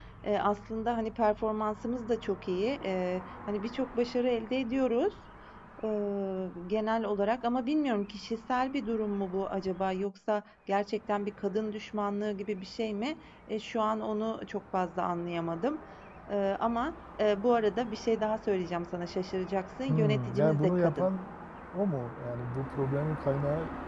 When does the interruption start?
19.9 s

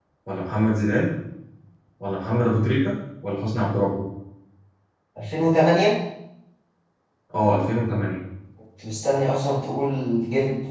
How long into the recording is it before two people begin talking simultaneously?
none

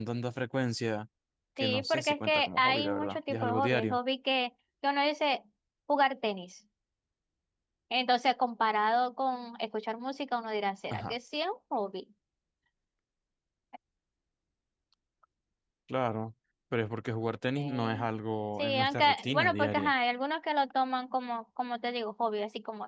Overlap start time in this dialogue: 1.6 s

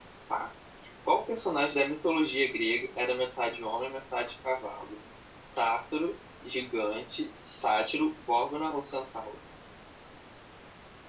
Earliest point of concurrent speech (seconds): none

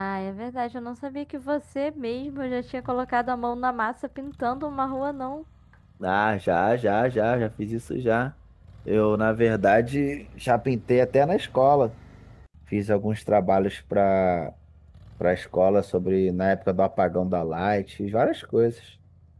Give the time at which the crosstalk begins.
none

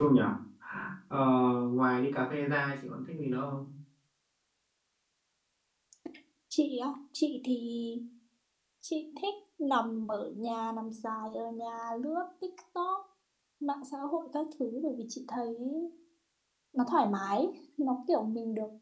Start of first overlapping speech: none

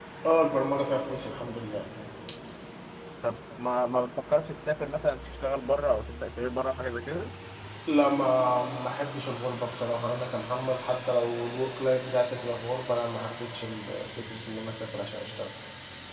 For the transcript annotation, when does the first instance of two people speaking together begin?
none

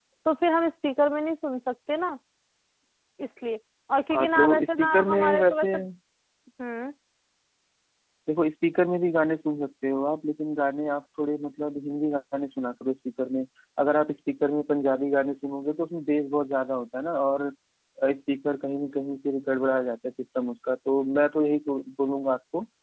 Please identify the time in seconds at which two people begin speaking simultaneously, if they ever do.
4.1 s

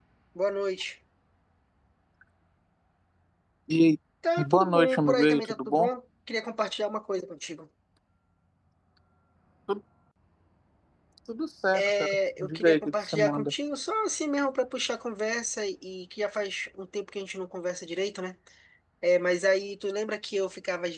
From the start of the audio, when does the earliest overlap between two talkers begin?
4.4 s

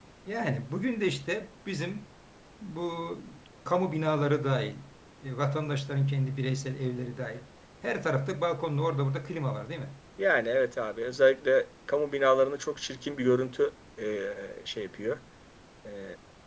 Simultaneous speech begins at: none

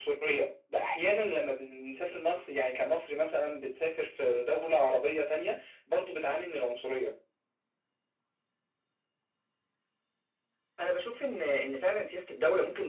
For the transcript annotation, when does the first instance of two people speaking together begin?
none

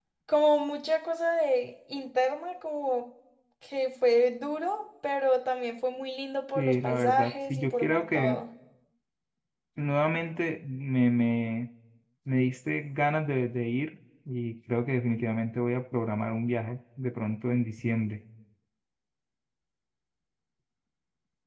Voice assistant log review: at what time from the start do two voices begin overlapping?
6.5 s

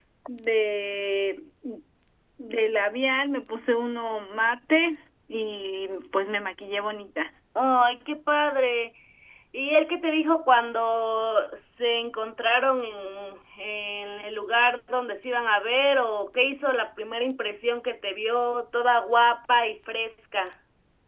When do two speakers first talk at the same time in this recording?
none

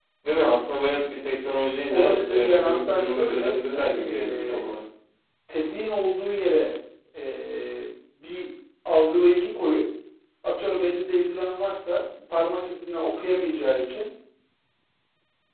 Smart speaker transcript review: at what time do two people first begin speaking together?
1.9 s

